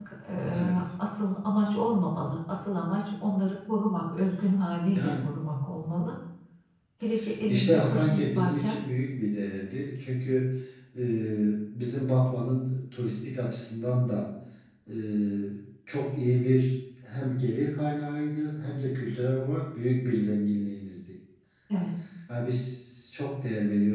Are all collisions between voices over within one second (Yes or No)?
No